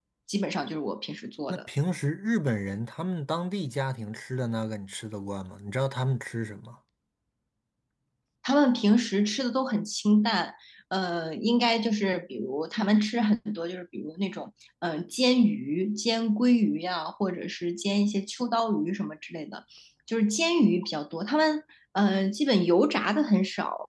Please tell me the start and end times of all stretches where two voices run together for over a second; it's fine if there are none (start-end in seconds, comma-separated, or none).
none